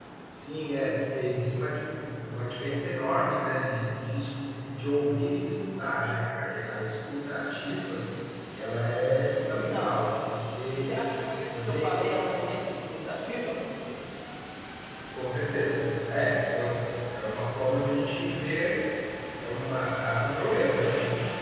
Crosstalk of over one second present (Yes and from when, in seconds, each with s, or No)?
No